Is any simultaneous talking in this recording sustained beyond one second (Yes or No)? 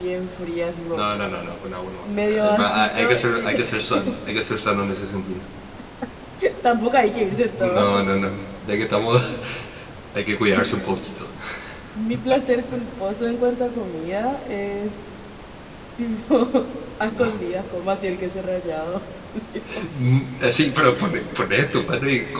Yes